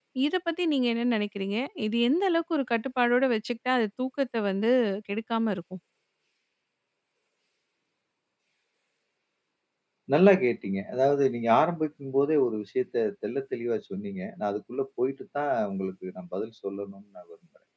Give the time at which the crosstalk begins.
none

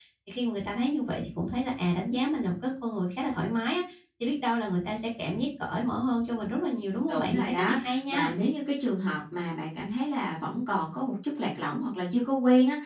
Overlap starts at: 7.1 s

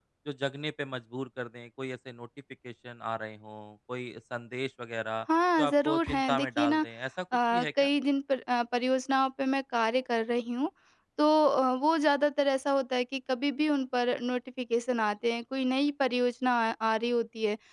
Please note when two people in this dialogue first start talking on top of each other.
5.6 s

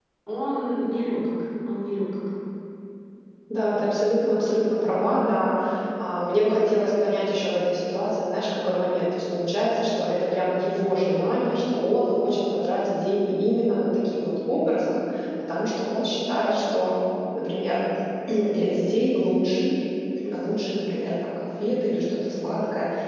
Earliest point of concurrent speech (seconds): none

